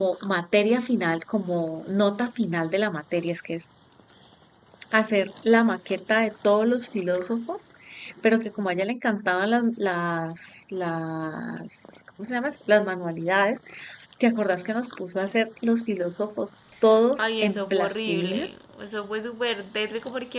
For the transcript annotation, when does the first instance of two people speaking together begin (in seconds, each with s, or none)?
17.2 s